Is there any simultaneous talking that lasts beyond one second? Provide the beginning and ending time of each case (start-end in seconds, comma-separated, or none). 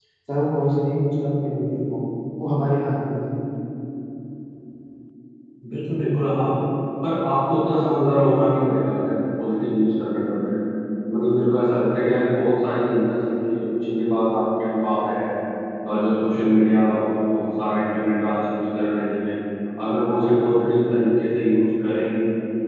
none